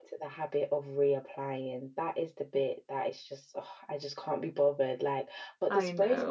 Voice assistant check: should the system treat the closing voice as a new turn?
No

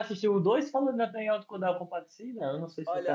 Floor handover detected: Yes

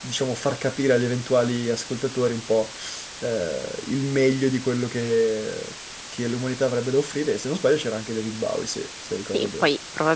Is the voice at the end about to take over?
Yes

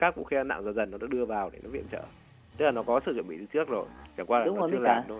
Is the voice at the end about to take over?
Yes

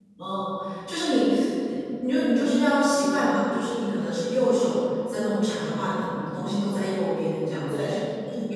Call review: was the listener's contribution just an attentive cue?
Yes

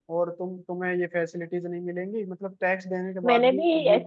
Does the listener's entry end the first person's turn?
Yes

